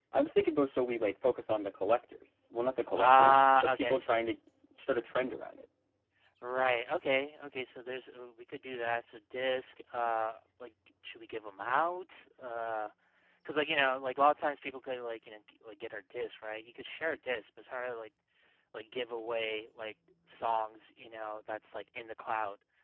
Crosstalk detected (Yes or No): Yes